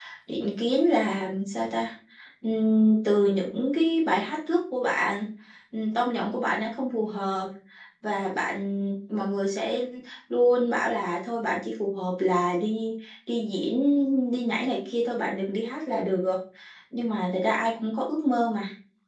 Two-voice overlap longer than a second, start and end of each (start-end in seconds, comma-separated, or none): none